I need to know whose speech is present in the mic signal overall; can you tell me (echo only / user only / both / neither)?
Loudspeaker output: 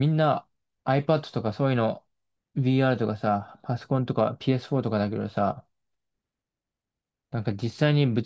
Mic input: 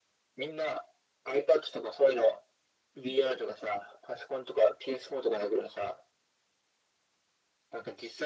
echo only